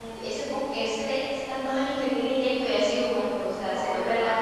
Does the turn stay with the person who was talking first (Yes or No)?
No